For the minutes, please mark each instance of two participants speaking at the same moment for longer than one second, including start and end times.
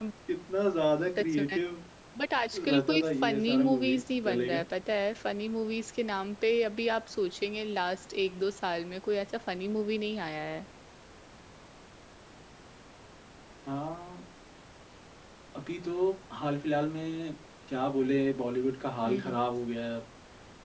2.6-4.6

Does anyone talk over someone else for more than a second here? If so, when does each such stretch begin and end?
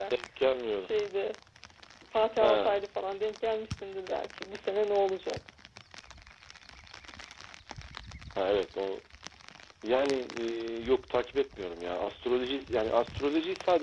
none

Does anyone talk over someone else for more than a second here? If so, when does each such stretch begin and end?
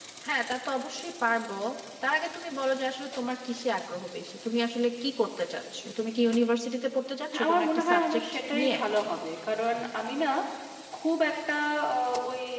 7.4-8.8

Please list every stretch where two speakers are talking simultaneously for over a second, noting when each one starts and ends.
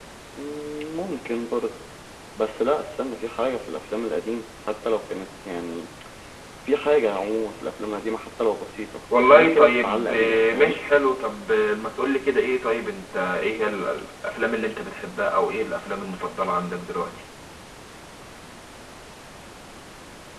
9.2-10.8

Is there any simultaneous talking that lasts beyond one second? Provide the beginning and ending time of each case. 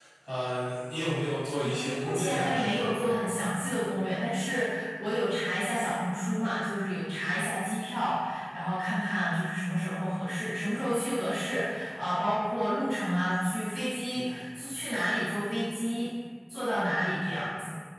1.6-2.9

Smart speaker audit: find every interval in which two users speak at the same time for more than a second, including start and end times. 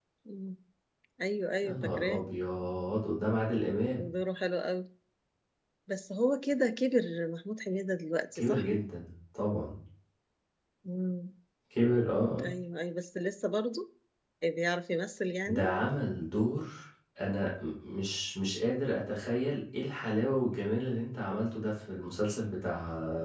none

